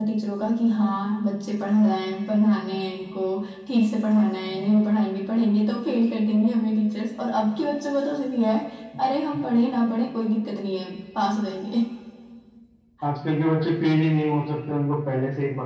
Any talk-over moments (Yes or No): No